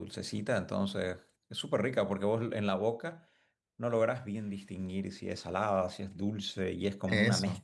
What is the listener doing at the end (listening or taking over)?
listening